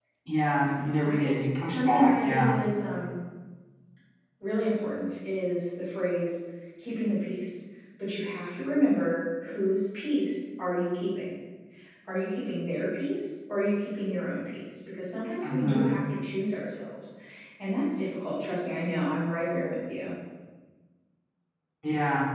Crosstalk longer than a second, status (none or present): present